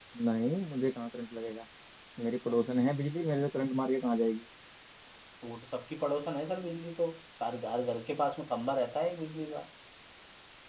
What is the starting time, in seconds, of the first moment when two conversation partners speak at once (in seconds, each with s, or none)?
none